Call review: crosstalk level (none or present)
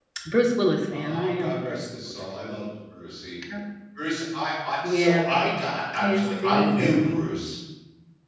present